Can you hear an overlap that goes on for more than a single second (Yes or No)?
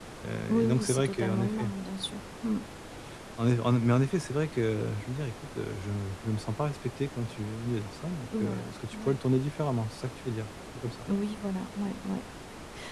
Yes